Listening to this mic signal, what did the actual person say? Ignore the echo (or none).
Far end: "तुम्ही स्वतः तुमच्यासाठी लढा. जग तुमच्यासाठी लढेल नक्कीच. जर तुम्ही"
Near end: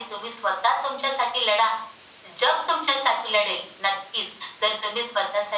none